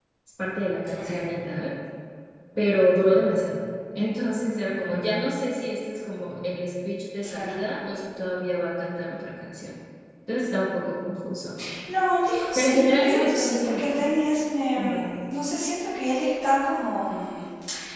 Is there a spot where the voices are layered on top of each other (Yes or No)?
Yes